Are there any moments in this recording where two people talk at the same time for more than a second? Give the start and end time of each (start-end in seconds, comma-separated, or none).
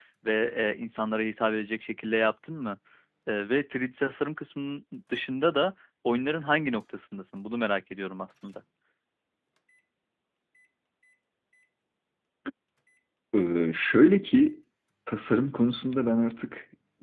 none